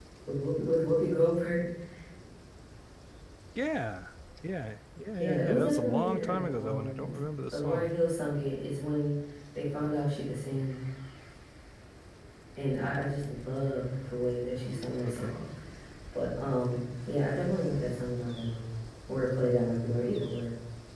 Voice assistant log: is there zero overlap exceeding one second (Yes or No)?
No